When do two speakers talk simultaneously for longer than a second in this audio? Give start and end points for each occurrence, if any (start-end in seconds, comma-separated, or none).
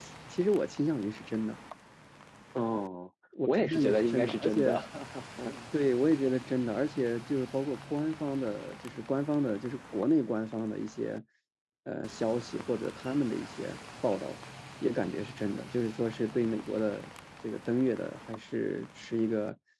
3.5-4.7